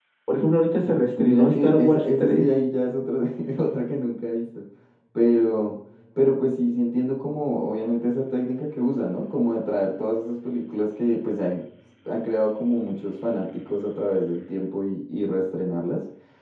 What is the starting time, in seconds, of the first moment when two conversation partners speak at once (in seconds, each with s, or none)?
1.2 s